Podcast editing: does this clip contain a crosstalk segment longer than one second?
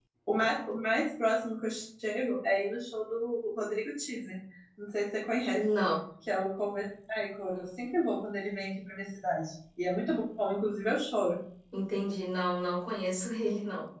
No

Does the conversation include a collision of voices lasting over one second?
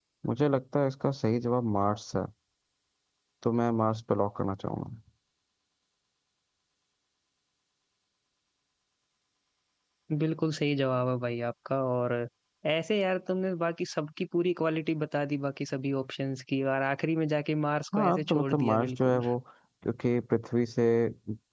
Yes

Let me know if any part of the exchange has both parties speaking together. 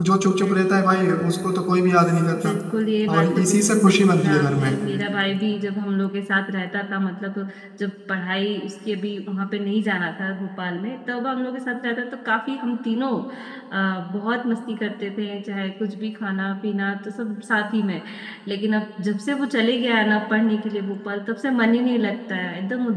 Yes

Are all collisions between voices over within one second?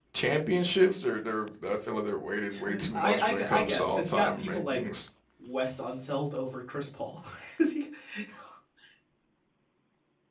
No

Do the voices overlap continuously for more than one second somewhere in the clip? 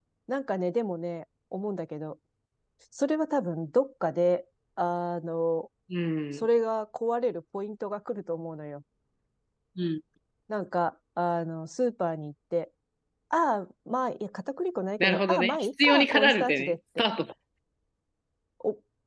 Yes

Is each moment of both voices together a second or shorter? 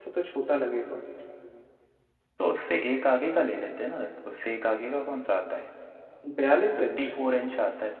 Yes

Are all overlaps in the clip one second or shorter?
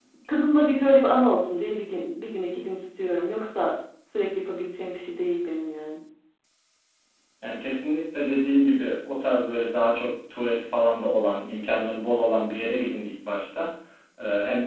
Yes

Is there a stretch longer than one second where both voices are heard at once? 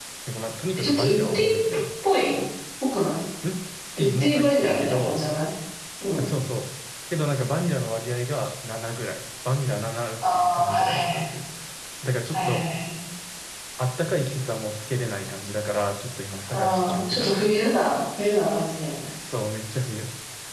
Yes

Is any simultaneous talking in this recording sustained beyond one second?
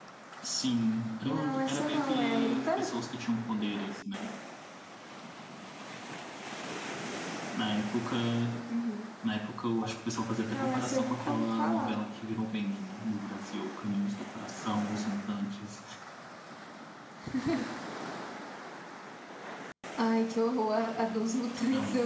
Yes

